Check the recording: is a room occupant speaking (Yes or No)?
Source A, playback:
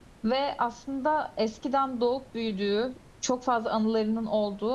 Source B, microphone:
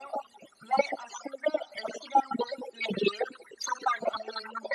No